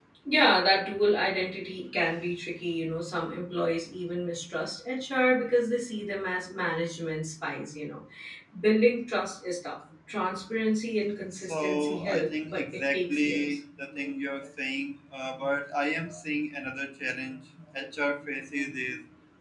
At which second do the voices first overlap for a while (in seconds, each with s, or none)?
11.3 s